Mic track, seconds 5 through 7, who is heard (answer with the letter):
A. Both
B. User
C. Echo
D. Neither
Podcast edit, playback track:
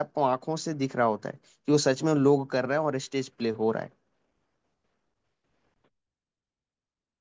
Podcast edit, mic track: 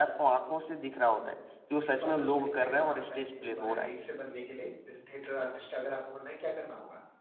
B